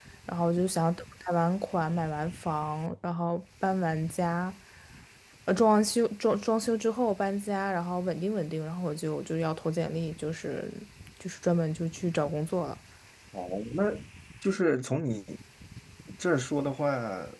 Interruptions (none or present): none